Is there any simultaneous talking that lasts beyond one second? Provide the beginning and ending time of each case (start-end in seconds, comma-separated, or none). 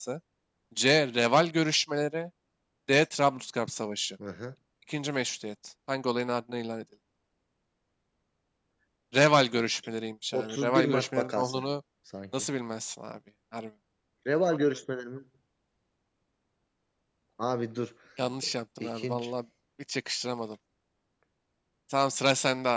10.3-11.6